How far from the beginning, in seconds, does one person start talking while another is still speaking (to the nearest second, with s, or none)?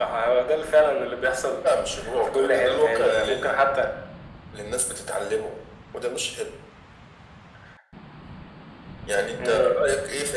2 s